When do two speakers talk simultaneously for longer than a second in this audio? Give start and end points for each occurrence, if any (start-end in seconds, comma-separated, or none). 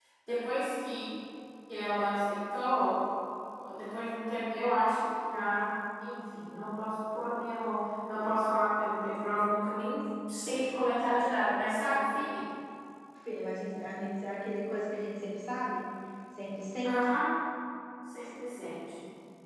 none